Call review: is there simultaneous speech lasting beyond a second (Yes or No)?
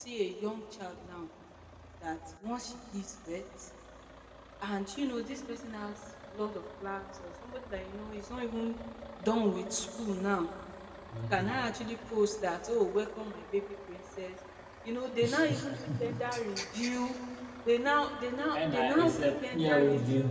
Yes